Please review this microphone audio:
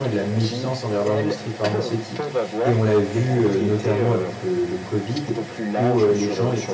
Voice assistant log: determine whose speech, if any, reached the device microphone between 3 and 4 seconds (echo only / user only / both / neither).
both